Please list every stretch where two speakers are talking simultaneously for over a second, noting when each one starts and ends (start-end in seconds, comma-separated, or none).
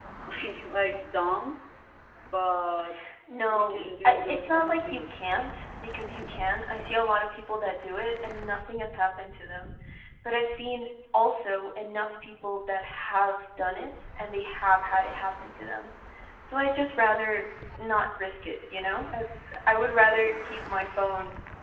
3.5-5.1